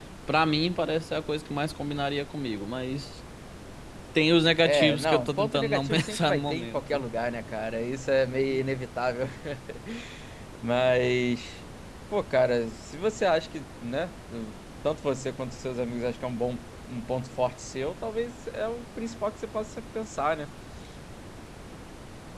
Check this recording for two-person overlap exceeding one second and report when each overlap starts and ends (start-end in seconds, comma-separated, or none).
4.6-7.0